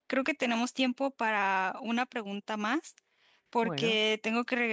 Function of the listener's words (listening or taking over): listening